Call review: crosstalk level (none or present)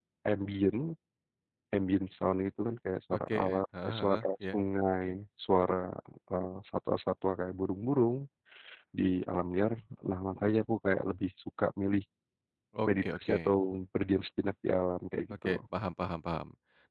present